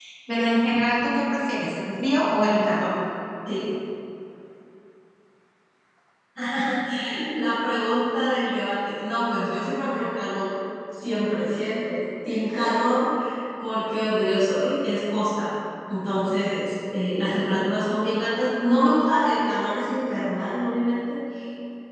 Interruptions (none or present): none